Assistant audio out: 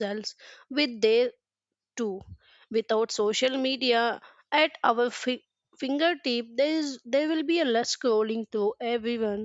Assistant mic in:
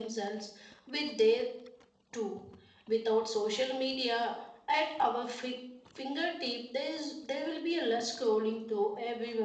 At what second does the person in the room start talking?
none

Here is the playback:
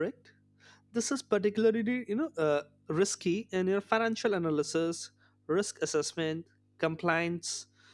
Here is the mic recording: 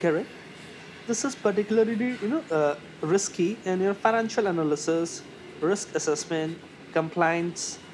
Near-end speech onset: none

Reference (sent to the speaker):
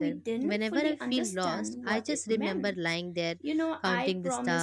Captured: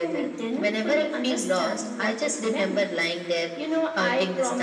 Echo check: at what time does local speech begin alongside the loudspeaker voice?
none

